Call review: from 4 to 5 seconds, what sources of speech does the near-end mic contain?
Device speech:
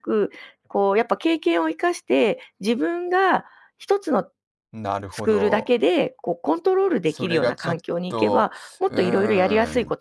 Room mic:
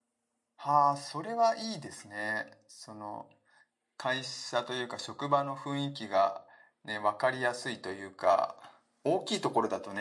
user only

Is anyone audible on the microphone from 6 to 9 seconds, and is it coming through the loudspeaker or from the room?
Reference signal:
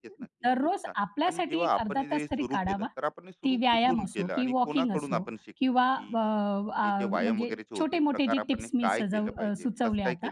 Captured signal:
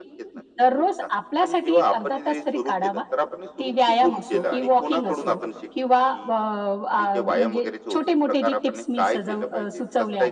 echo only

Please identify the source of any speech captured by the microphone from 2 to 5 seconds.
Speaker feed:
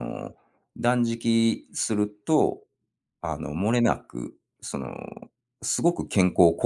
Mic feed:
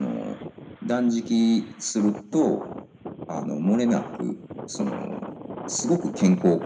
echo only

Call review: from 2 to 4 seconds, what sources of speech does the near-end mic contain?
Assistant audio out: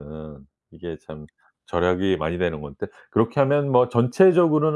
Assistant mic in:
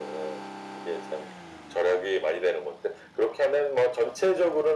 echo only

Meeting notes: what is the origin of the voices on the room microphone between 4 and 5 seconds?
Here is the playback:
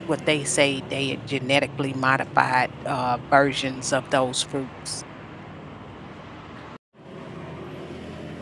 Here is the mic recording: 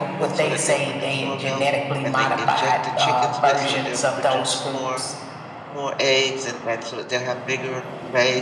both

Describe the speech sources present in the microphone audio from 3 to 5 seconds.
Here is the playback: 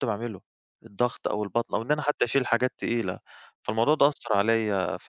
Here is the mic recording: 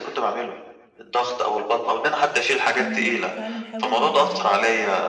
both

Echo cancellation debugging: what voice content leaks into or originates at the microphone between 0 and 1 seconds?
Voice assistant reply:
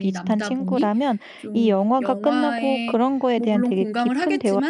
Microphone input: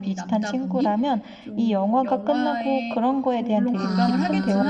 echo only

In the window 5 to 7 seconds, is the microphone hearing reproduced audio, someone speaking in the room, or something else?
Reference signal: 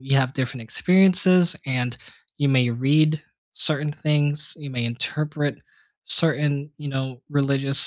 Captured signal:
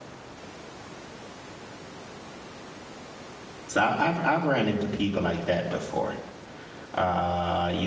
user only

